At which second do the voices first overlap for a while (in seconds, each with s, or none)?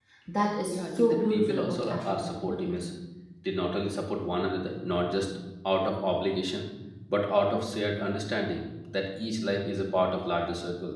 0.7 s